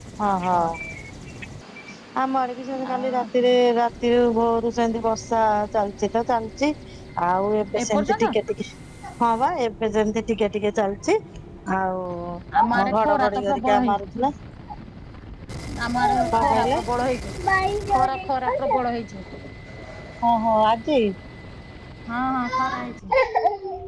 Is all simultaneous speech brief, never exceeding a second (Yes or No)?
No